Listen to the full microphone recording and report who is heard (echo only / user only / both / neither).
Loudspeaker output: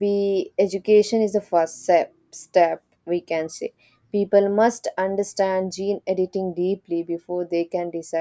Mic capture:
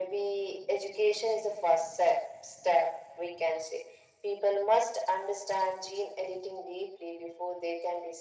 echo only